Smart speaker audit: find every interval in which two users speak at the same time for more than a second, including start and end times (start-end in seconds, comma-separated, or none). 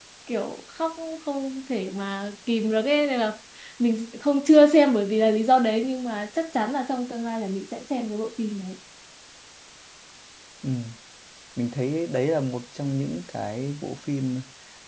none